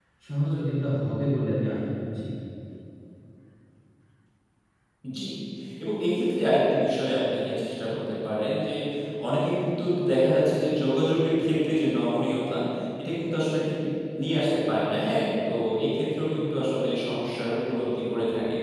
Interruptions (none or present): none